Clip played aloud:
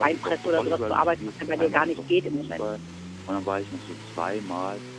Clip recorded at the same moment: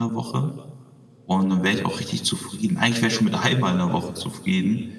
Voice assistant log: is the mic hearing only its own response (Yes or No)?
No